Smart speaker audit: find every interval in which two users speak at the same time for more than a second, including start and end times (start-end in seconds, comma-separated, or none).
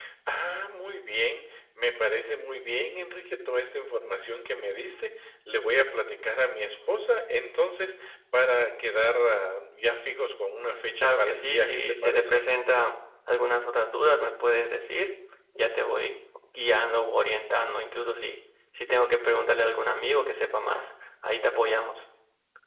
11.0-12.4